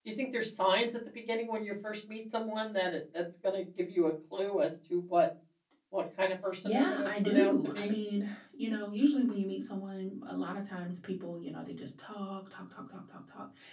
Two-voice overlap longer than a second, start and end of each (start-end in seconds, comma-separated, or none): 6.6-8.0